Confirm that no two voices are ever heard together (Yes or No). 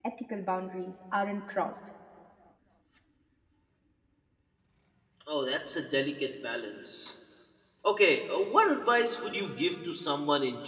Yes